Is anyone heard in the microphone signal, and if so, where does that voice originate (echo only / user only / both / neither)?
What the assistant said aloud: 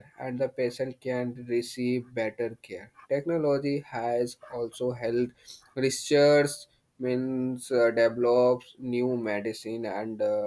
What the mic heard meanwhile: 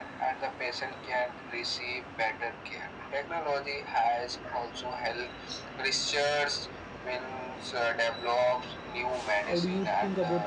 both